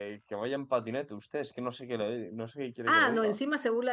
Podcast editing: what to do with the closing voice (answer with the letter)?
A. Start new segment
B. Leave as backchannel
A